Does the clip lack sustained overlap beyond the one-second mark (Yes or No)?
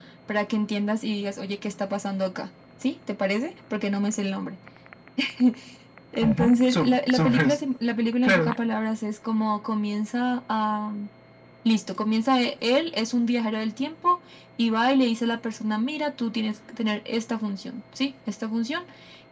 No